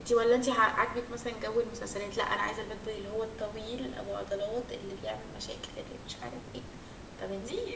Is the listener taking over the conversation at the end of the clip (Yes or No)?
Yes